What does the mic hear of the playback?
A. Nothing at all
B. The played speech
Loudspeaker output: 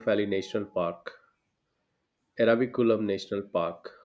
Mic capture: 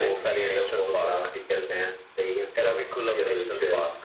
B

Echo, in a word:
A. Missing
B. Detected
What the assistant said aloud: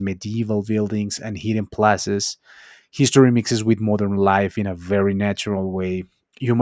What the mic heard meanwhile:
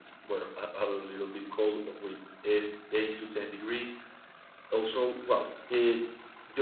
A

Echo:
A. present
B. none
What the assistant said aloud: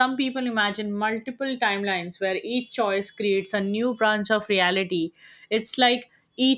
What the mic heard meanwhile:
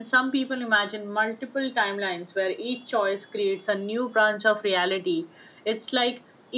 A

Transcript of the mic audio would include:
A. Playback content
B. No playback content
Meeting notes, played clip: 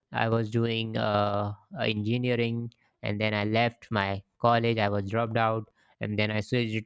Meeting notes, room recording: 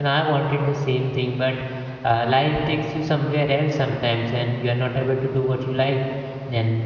B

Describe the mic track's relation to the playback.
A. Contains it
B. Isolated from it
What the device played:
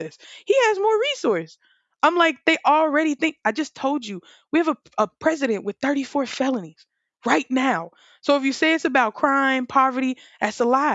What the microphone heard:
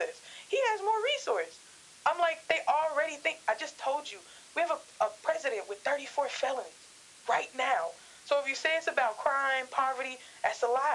A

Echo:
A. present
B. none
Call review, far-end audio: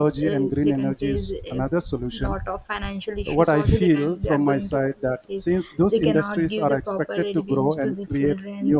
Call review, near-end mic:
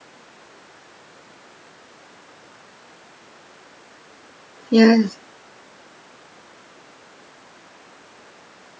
B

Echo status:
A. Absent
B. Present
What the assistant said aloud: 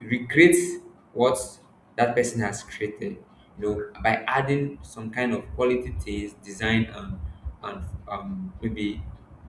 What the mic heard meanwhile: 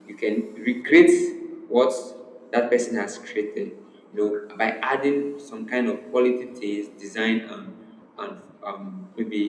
B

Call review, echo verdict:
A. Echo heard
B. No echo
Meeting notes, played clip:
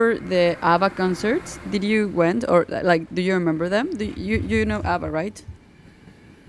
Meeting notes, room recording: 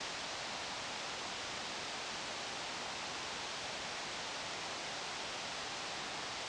B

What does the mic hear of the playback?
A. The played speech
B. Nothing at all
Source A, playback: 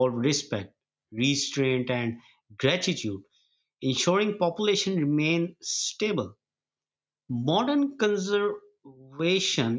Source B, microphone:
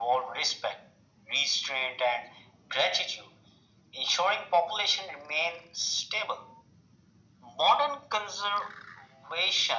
A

